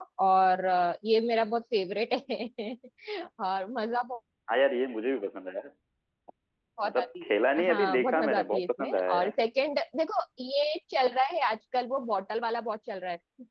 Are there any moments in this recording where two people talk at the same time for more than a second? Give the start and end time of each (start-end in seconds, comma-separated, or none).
6.8-9.3